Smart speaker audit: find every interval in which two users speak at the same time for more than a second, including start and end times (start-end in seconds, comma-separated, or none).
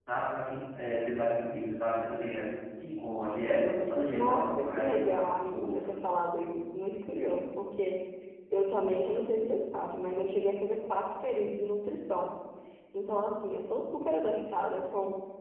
4.1-5.7